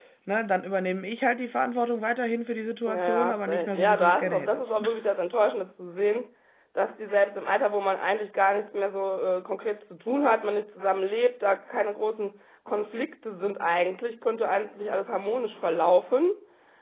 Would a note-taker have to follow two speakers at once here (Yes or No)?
Yes